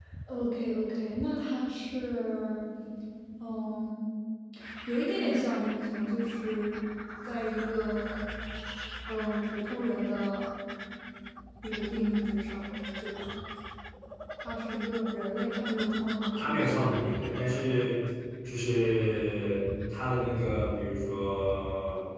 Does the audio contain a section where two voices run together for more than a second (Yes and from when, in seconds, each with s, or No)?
No